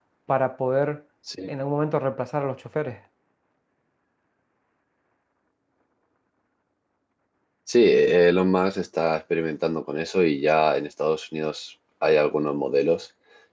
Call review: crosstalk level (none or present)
none